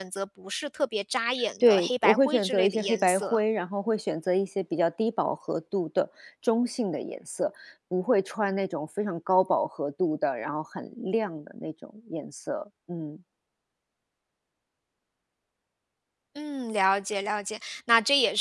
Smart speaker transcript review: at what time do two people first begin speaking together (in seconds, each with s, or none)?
1.4 s